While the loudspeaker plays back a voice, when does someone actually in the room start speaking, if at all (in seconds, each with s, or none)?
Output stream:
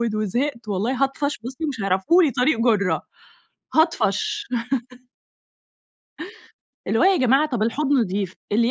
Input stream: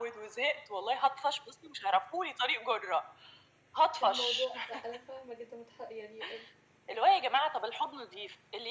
4.0 s